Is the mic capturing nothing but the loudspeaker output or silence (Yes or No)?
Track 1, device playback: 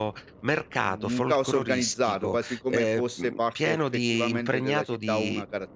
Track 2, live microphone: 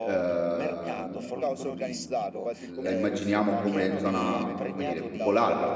No